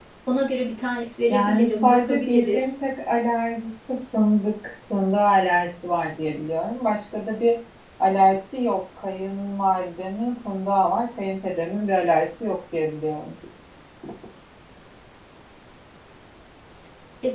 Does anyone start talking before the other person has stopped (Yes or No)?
Yes